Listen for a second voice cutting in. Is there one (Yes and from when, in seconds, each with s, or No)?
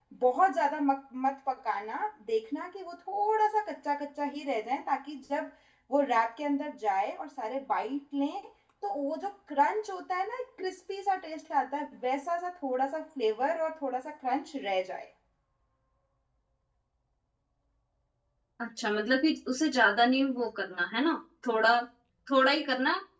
No